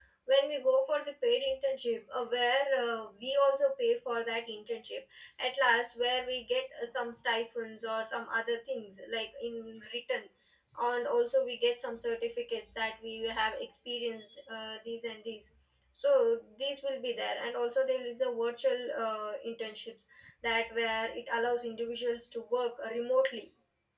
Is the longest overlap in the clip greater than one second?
No

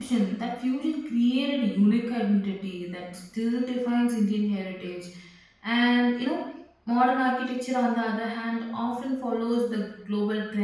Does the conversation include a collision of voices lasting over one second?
No

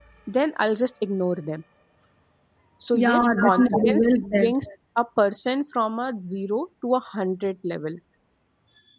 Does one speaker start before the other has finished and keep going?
Yes, from 2.9 s

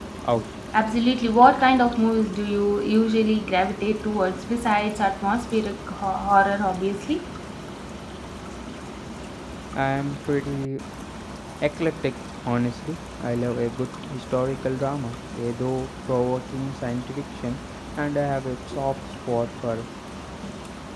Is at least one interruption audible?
No

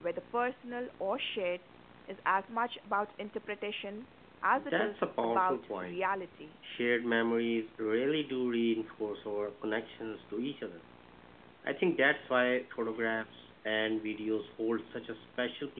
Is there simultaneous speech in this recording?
Yes, from 4.5 s

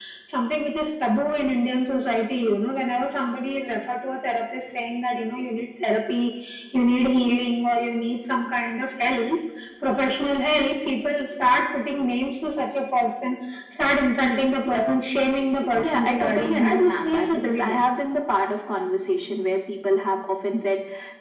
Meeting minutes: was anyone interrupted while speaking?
Yes, from 15.6 s

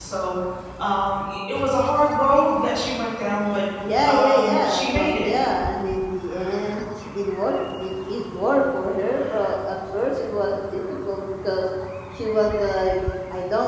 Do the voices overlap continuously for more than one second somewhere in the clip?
Yes, from 4.0 s

